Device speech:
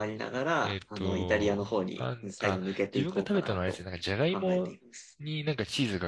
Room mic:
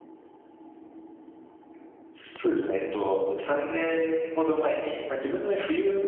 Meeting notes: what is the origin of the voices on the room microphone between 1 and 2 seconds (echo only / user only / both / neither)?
neither